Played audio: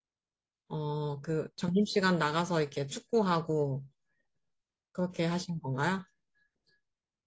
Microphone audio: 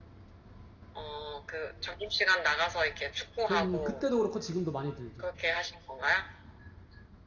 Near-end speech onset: 3.4 s

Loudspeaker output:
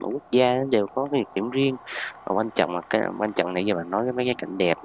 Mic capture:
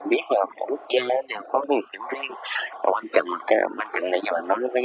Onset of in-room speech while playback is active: none

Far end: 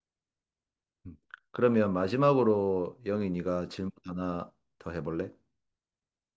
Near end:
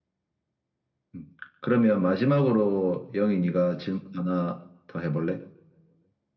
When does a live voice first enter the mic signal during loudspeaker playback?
none

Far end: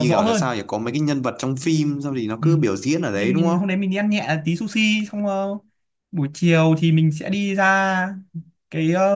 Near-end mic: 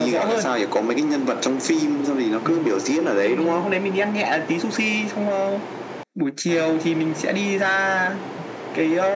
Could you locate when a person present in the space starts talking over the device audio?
none

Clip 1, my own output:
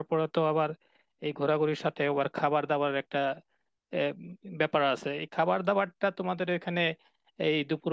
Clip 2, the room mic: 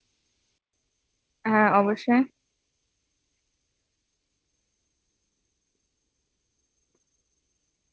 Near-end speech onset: 1.5 s

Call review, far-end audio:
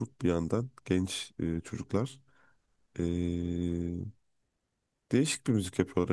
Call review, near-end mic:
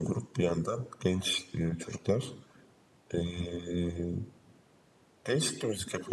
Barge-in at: none

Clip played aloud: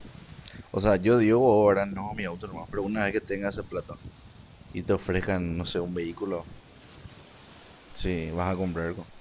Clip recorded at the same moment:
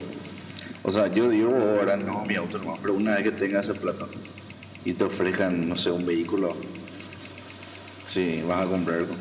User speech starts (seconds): none

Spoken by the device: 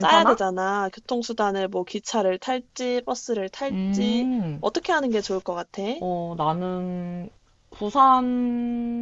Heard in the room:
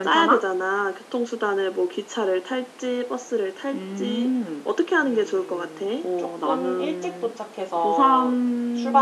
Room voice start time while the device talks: 5.0 s

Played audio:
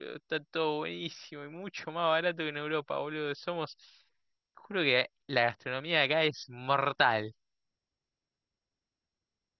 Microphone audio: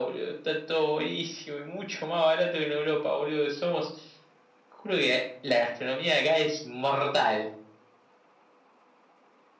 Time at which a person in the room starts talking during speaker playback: none

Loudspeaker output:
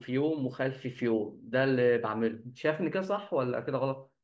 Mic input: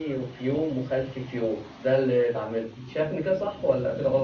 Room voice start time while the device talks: none

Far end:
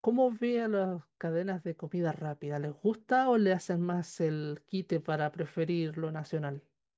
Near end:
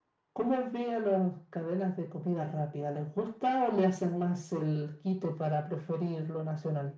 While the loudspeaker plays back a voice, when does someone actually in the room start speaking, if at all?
none

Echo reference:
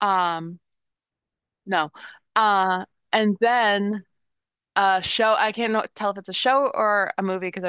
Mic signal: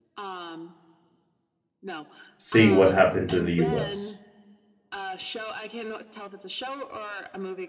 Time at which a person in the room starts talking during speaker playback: 2.4 s

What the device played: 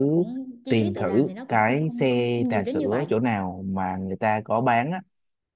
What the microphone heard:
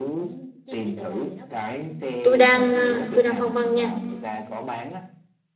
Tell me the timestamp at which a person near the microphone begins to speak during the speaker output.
2.2 s

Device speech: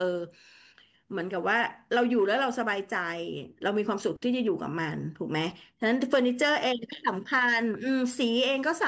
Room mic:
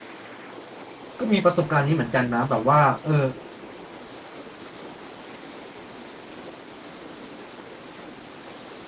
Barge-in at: 1.2 s

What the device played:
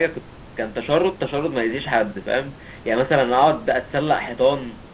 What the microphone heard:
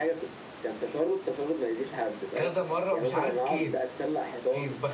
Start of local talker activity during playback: 2.4 s

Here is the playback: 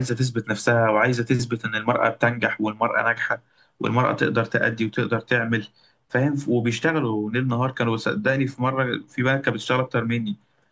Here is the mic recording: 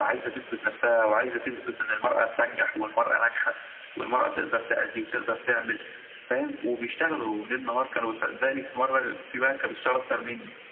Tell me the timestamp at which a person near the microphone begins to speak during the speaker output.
none

